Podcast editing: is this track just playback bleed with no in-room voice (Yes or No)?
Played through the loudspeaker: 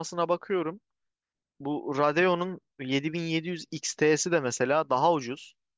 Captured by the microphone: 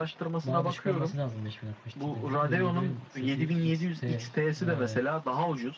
No